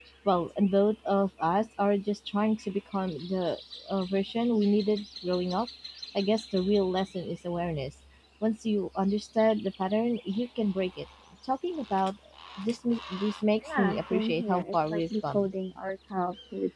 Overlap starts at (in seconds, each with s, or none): 13.6 s